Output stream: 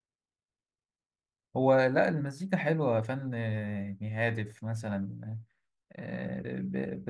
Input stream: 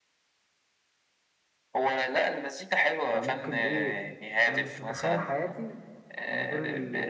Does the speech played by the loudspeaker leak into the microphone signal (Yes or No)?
Yes